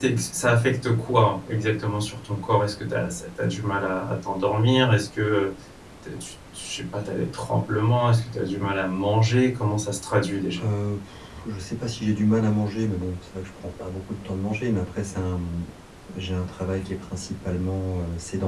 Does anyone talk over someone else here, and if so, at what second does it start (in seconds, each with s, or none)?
none